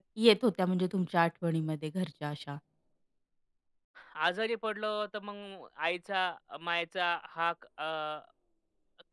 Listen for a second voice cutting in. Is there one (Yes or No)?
No